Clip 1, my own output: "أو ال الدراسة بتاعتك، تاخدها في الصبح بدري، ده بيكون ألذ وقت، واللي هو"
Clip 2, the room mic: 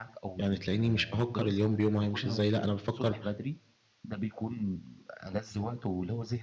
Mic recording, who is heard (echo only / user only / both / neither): both